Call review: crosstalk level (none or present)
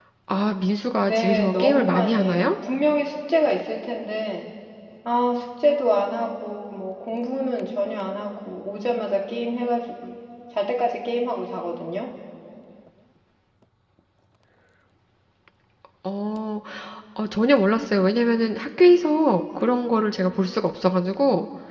present